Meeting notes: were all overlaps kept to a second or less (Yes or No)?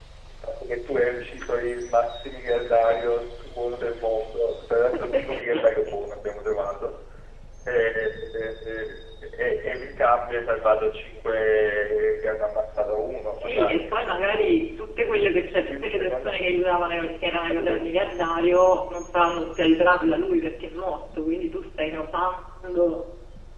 No